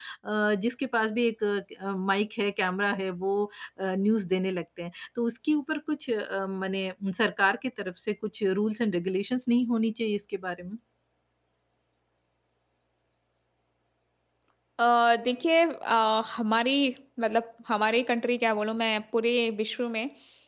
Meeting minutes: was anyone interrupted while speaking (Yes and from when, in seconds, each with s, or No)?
No